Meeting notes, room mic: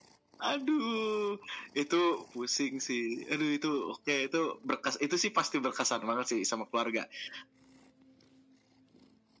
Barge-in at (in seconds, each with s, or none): none